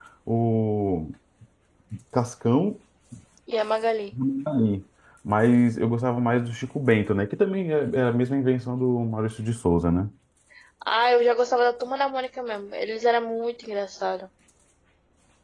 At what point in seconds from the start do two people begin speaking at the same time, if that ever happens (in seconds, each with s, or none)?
none